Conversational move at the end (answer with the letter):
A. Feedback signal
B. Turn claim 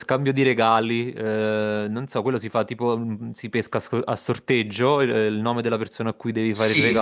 B